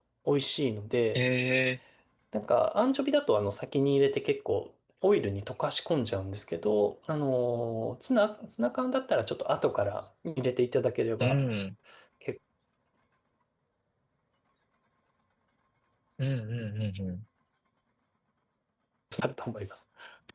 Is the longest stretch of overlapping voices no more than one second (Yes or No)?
Yes